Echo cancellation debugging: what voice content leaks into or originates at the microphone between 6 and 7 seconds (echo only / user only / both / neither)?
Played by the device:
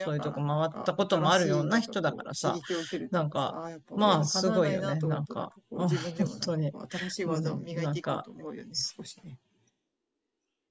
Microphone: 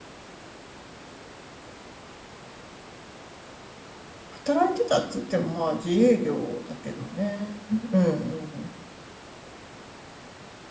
user only